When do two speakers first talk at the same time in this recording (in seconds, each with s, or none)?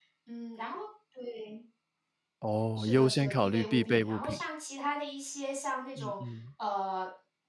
2.8 s